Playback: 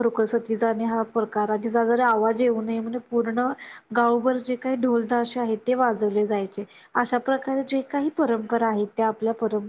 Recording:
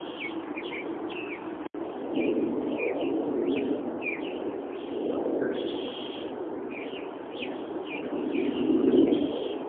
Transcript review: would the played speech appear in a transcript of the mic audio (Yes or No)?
No